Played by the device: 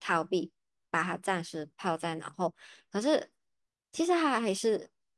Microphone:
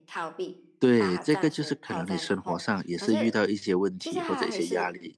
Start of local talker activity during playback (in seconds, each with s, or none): 0.8 s